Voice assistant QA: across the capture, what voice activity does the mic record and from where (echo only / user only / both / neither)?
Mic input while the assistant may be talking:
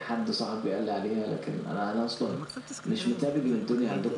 both